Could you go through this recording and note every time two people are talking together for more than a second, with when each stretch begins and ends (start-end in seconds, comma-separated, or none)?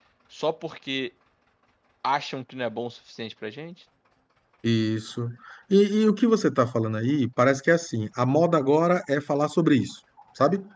none